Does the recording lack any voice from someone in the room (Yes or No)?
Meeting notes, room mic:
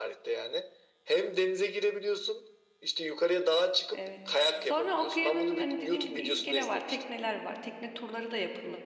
No